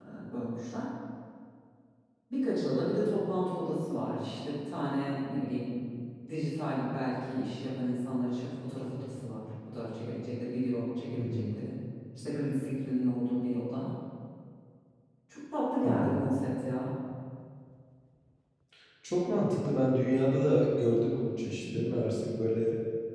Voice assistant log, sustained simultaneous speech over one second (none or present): none